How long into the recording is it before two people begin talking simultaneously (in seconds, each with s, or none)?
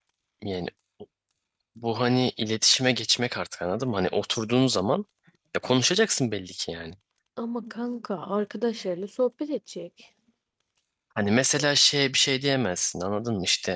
none